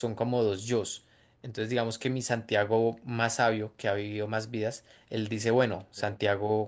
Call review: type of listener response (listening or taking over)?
listening